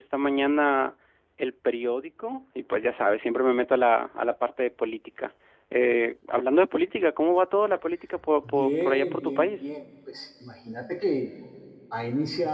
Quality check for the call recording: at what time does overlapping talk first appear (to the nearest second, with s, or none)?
8 s